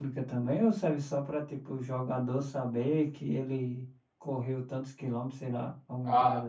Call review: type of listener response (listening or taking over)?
taking over